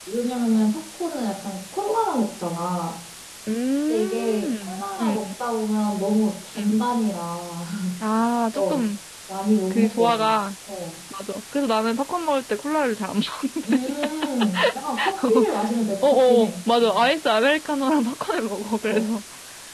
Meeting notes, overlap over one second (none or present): present